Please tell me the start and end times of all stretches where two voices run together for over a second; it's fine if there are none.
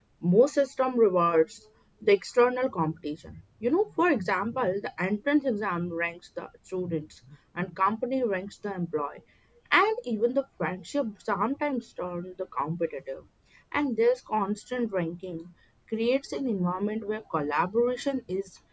none

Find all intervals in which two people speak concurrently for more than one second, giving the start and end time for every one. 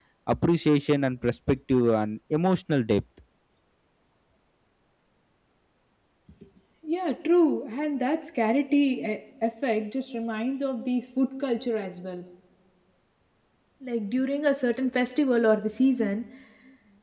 none

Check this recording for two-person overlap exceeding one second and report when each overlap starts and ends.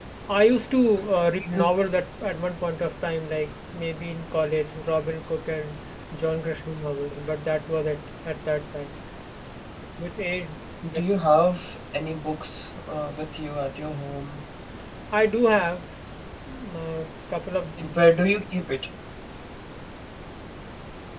none

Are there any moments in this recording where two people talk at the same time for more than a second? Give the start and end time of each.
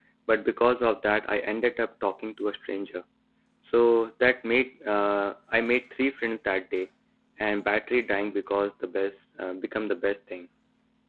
none

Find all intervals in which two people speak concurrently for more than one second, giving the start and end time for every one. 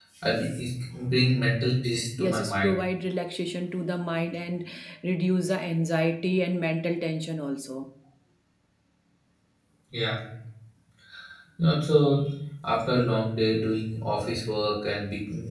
none

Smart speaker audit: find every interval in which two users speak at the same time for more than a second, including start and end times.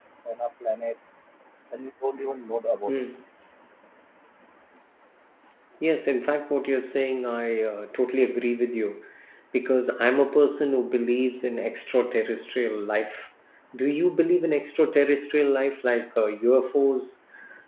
none

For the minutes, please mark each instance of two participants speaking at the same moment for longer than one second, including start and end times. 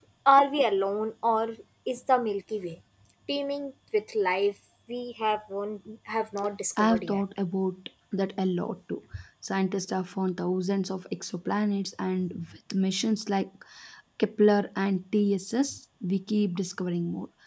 none

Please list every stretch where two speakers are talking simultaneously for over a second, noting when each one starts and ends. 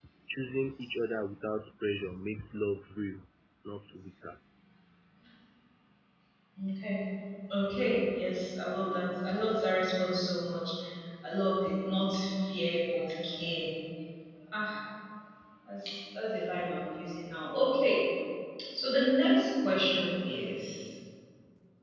none

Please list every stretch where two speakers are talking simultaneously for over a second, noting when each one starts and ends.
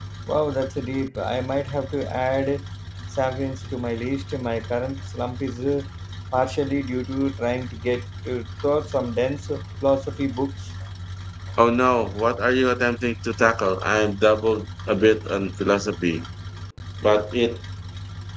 none

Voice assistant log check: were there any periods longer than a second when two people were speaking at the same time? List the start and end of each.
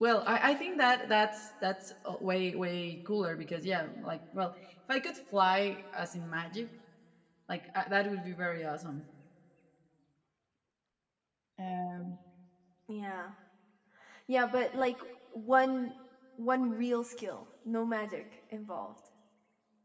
none

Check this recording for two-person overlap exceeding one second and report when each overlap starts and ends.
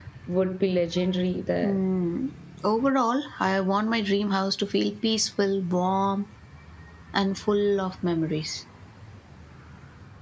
none

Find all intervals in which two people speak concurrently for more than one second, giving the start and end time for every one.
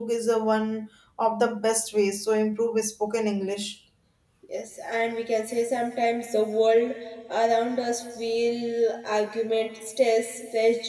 none

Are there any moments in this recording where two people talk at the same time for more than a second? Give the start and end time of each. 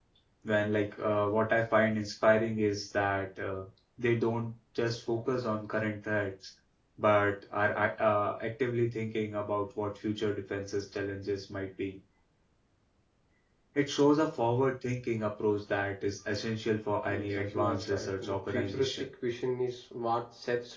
17.1-19.1

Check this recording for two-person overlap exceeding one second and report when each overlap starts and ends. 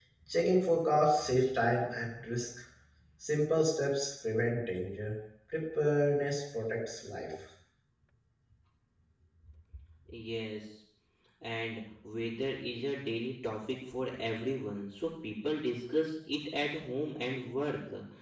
none

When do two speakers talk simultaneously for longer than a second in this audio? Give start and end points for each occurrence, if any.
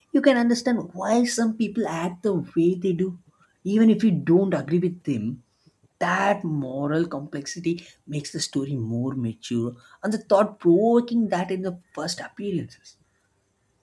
none

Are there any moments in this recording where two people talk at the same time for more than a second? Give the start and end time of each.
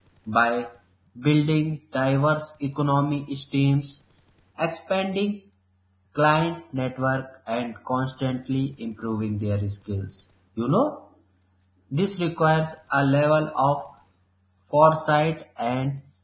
none

